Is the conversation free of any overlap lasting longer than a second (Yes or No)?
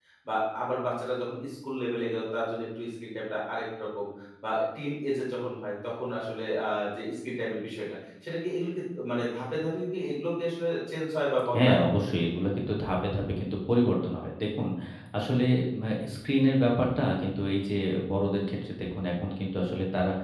Yes